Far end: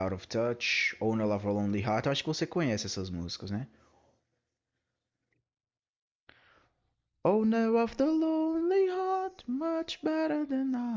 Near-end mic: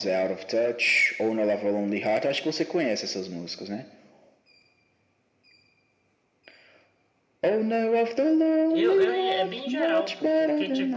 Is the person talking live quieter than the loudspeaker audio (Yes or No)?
Yes